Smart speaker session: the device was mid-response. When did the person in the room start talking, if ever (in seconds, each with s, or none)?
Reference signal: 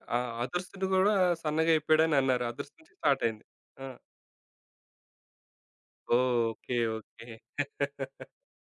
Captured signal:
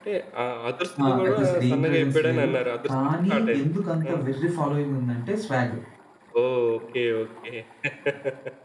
1.0 s